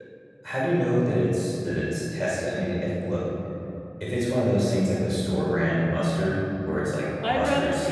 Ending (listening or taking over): taking over